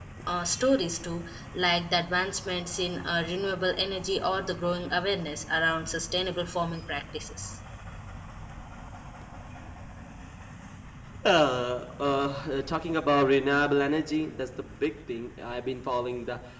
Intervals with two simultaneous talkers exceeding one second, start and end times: none

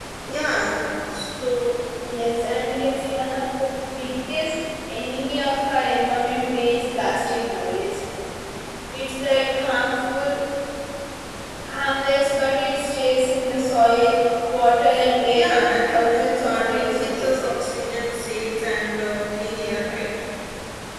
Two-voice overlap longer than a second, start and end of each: 15.3-17.5

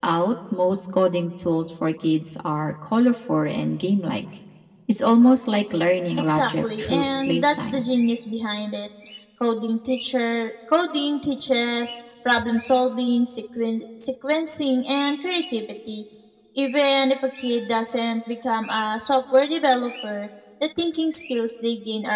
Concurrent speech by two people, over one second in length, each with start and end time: 6.2-7.9

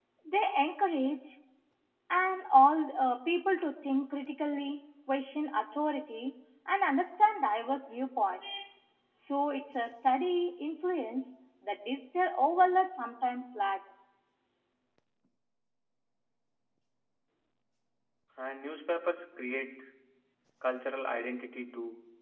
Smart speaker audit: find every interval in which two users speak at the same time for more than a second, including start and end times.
none

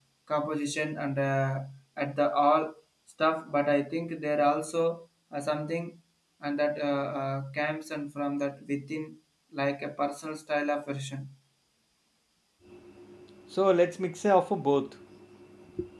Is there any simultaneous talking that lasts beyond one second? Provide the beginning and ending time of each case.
none

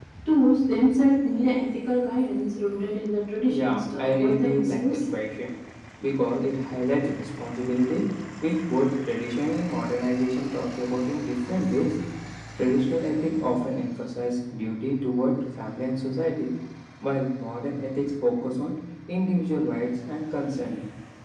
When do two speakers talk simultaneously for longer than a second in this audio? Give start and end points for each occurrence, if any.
3.5-5.0

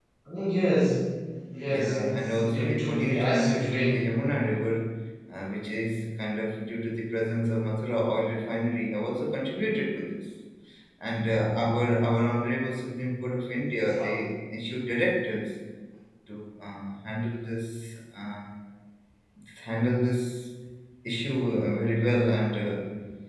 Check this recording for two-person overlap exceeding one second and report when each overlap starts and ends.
1.7-4.1

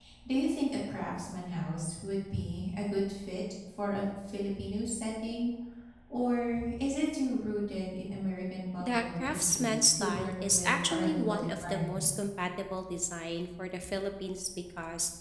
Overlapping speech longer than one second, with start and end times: 8.8-12.1

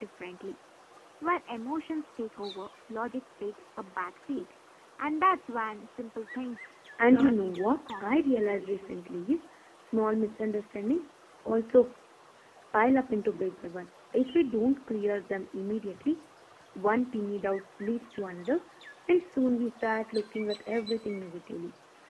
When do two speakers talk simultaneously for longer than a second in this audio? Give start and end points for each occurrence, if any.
7.1-8.9

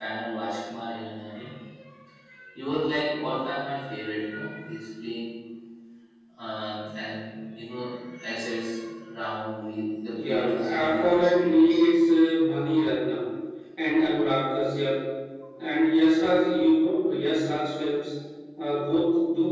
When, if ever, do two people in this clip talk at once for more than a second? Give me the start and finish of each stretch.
10.1-11.8

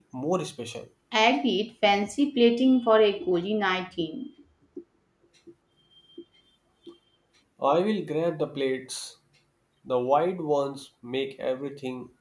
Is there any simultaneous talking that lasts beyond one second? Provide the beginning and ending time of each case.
none

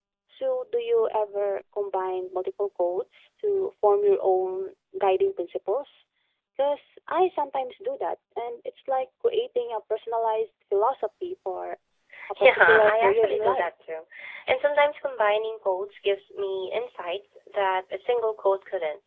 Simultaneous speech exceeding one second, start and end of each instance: 12.4-13.7

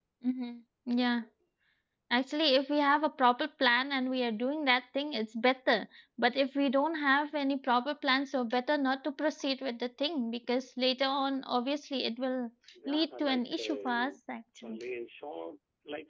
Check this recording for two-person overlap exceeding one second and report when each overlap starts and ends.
12.9-14.1

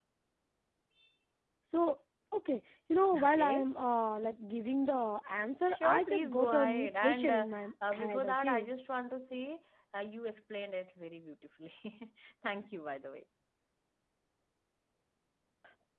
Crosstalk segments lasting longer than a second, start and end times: 5.6-8.7

